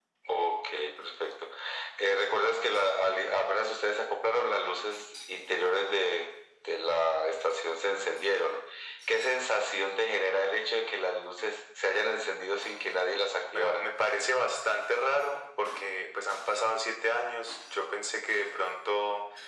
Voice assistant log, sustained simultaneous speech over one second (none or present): none